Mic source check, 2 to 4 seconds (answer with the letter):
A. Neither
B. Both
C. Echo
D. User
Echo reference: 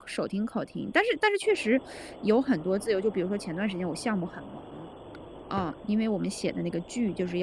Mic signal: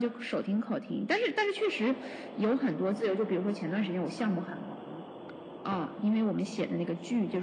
C